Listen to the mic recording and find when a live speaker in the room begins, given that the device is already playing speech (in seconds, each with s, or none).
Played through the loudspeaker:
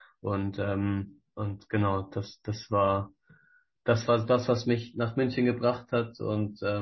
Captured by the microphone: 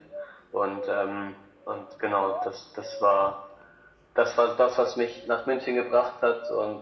none